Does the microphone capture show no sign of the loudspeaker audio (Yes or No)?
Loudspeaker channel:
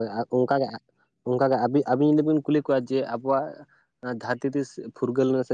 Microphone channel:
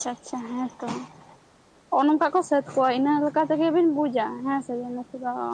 Yes